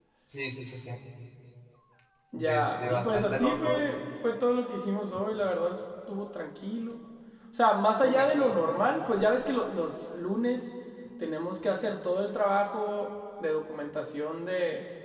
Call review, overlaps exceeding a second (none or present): present